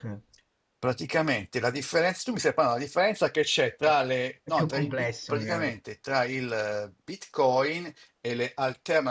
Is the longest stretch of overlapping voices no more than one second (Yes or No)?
No